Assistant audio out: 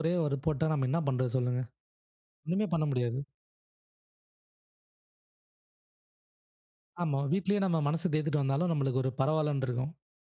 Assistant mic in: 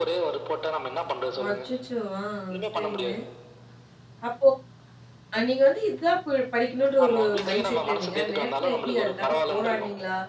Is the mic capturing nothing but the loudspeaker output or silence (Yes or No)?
No